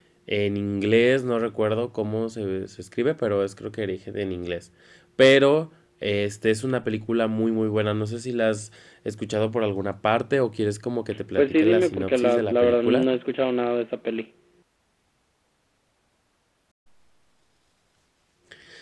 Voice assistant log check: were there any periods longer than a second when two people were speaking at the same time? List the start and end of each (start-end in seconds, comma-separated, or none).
11.4-13.0